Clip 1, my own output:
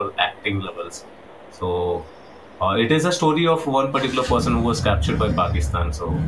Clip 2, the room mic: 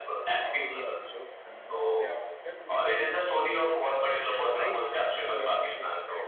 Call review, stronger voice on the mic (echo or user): echo